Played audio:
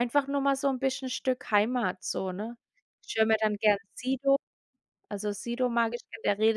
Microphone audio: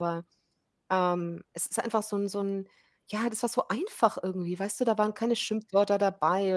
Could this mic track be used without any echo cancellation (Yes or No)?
Yes